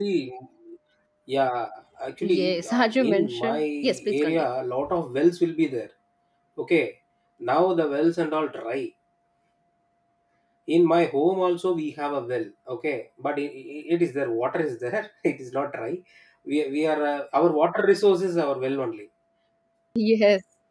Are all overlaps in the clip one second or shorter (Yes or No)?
No